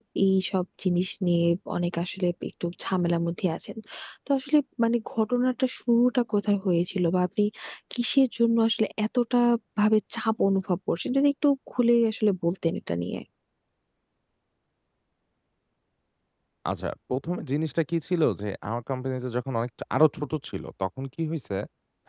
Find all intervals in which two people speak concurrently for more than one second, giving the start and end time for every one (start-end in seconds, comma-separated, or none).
none